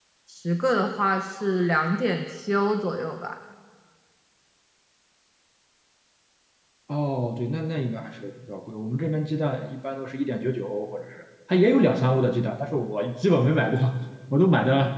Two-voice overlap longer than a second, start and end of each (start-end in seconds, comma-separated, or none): none